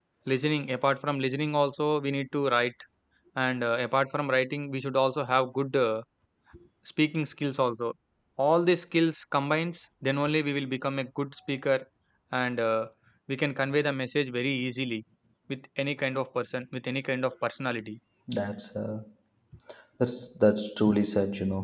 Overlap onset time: none

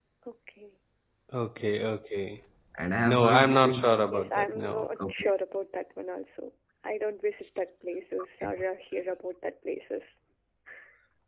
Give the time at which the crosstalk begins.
3.0 s

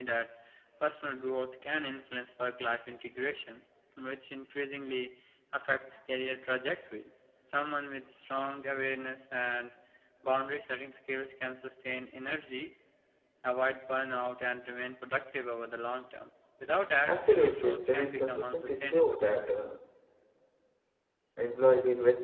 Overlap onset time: 17.0 s

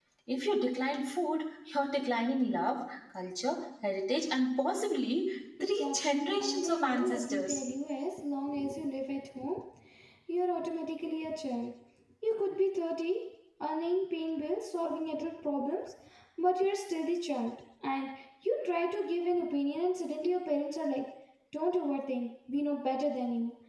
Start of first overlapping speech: 5.8 s

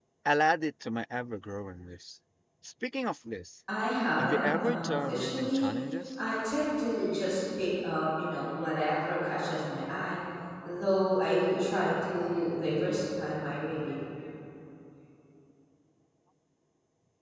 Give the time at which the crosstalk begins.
4.2 s

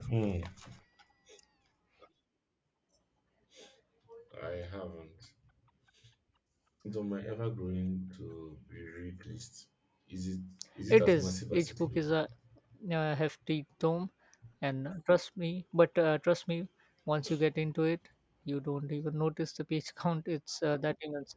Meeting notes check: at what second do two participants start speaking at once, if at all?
10.9 s

